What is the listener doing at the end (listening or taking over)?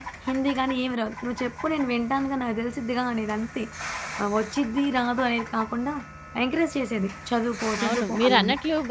taking over